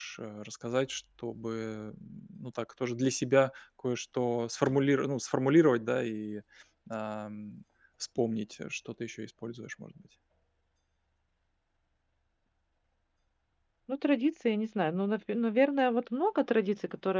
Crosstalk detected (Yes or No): No